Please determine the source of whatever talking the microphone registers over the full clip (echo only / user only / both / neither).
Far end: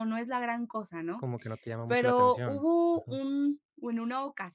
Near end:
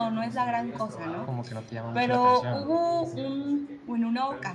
both